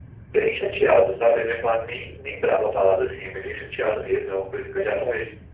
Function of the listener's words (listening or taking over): listening